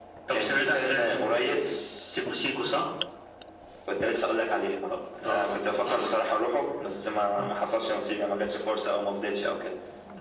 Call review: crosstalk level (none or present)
present